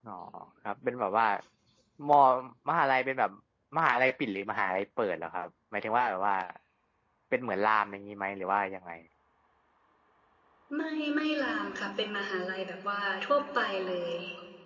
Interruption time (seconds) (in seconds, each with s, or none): none